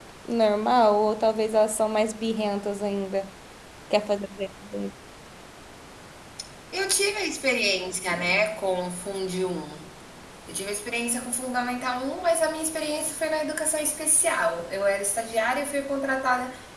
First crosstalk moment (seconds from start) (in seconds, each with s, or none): none